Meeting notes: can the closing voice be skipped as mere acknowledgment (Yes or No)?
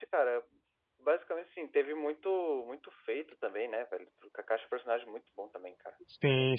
No